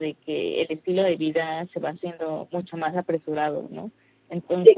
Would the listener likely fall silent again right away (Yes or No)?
Yes